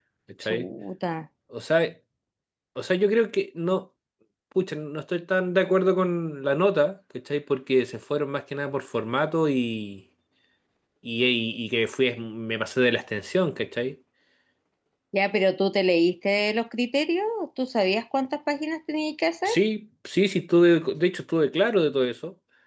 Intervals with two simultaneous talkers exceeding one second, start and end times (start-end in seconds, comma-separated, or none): none